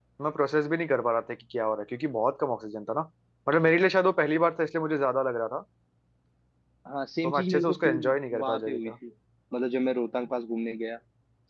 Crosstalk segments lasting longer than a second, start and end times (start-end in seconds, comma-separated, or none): 7.2-8.9